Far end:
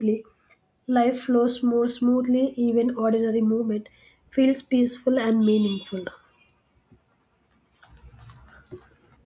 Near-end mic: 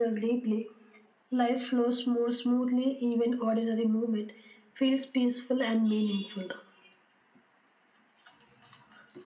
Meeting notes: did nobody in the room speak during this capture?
Yes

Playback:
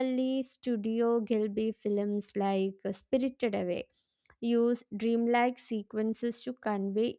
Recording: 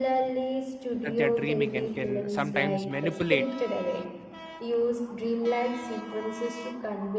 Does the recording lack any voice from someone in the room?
No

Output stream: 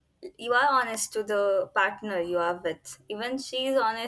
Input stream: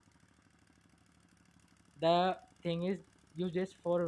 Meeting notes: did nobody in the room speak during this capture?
No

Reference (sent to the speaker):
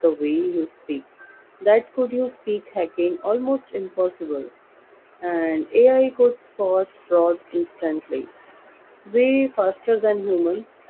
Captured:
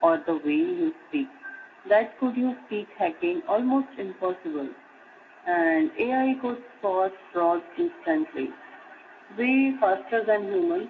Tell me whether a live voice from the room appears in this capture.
No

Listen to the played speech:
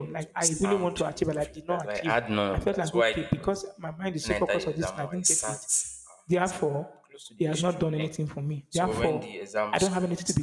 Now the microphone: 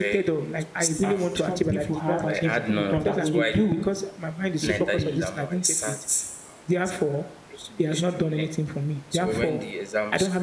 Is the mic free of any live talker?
No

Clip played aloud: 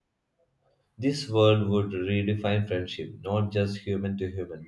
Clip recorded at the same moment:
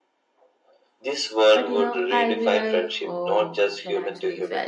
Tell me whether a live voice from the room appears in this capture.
Yes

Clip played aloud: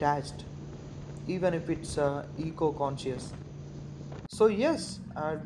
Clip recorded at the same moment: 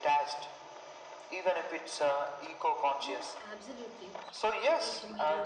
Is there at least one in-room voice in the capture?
Yes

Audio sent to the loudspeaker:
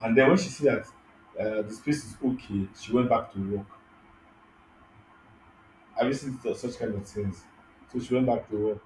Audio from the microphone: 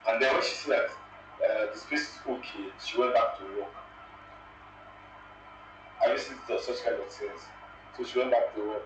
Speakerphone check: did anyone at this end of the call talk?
No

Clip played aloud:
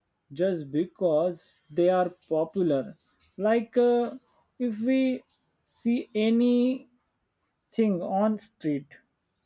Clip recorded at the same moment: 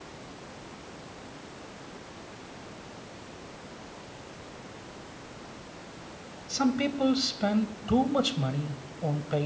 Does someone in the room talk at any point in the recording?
Yes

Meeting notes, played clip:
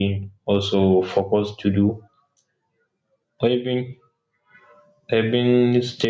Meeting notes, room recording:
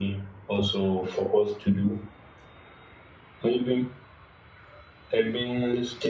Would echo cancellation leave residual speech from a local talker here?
No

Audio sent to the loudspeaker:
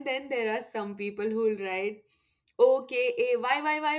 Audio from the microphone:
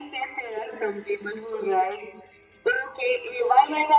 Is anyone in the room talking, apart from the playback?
No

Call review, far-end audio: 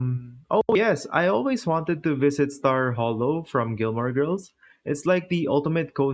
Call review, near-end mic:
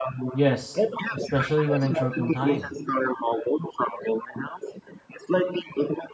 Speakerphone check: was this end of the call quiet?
No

